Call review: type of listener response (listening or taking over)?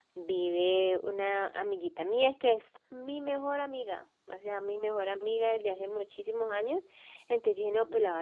listening